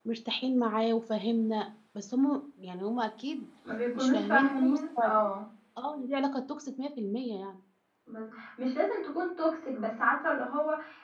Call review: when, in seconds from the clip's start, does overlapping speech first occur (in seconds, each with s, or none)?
3.9 s